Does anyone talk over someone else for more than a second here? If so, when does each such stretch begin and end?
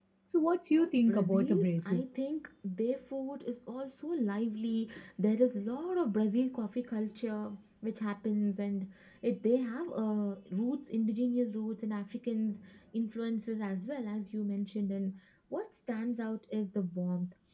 0.7-2.0

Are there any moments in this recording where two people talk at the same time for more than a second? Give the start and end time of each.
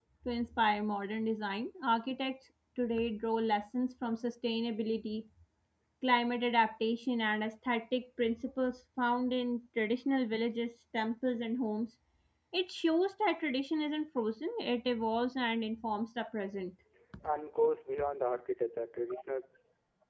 none

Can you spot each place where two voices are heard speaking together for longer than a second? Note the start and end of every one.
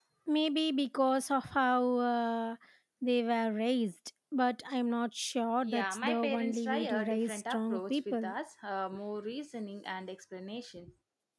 5.6-8.3

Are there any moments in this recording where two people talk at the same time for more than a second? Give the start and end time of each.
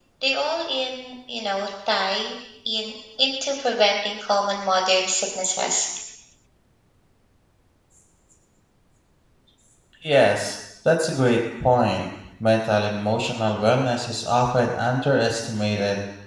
none

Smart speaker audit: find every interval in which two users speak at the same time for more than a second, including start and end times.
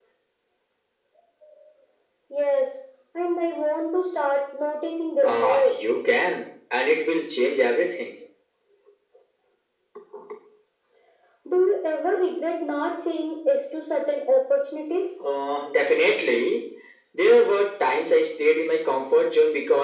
none

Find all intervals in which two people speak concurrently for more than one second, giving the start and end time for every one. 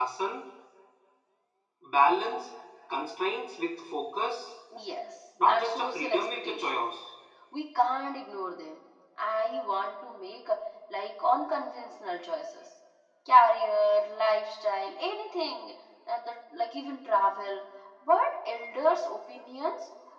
5.5-6.8

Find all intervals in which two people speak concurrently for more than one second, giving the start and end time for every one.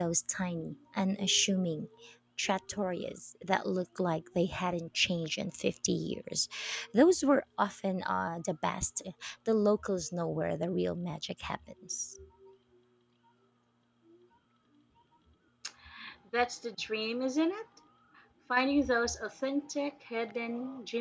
none

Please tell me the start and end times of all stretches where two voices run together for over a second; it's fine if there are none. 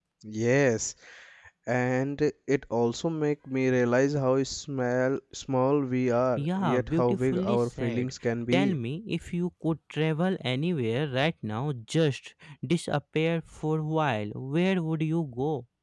6.4-8.1

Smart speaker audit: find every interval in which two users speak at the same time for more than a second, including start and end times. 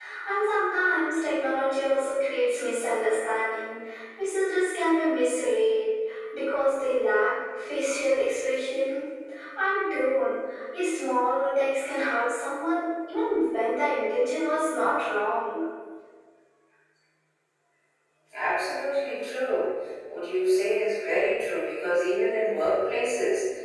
none

